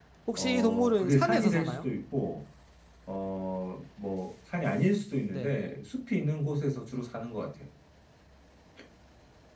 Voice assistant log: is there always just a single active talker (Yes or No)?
No